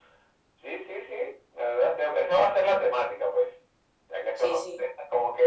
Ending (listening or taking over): listening